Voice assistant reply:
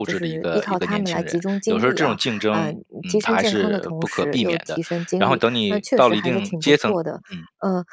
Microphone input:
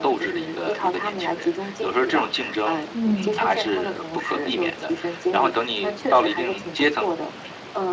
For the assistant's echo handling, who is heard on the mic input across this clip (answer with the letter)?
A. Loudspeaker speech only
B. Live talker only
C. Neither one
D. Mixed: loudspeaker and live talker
D